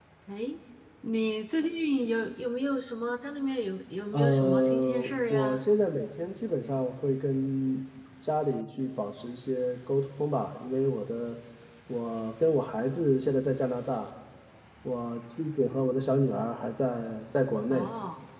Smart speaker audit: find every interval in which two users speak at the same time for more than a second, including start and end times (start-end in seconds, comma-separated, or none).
4.1-5.6